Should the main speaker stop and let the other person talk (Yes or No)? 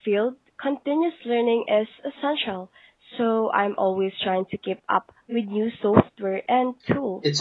Yes